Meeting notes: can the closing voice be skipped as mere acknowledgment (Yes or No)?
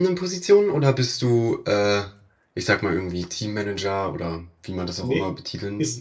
No